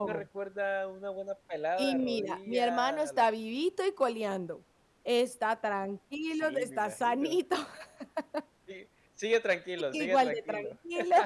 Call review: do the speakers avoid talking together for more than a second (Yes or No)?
No